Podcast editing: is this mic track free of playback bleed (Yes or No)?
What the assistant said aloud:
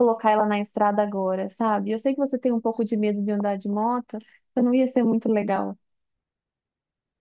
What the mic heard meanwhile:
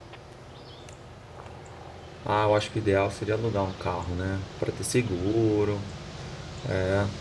Yes